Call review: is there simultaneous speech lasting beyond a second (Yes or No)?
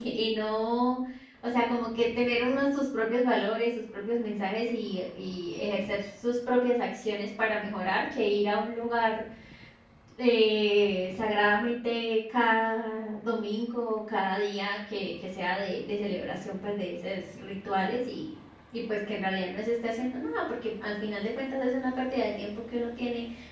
No